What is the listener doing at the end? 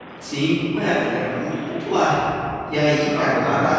listening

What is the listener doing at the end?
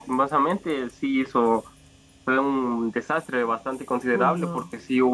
listening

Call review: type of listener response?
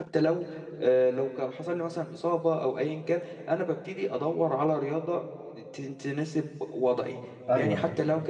listening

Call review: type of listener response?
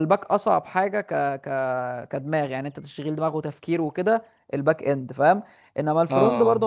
listening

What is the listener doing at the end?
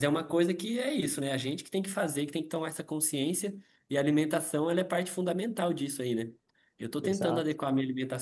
listening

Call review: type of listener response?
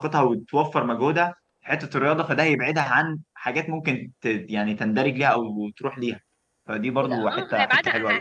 taking over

